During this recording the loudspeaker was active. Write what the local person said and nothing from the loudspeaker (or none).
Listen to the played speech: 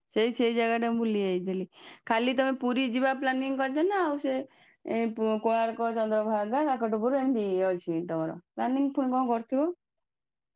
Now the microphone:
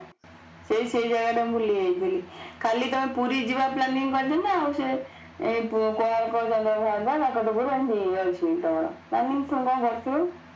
none